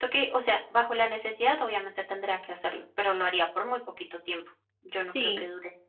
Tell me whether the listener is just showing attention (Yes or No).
No